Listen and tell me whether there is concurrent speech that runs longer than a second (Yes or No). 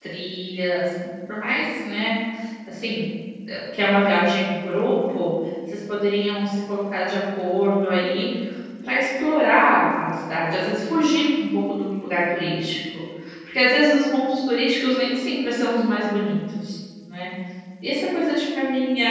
No